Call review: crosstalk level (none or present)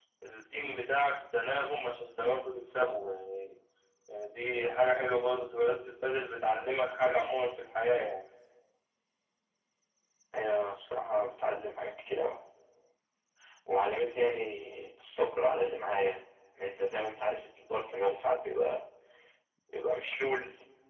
none